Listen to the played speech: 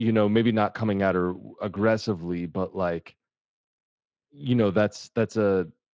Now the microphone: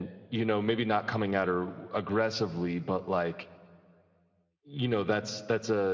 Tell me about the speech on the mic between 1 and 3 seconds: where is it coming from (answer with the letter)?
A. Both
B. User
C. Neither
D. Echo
D